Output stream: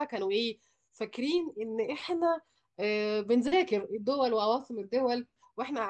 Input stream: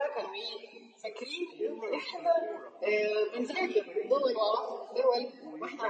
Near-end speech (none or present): present